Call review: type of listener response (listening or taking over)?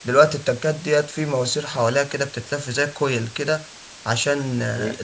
listening